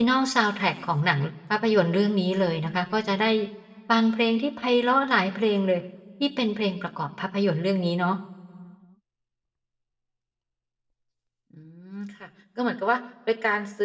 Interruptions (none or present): none